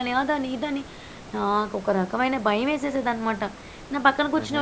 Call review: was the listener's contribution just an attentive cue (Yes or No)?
Yes